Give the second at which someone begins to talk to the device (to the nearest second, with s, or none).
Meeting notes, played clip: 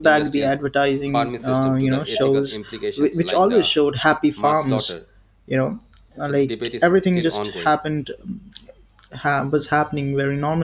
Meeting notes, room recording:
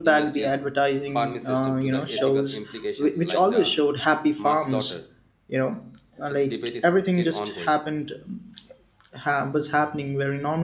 none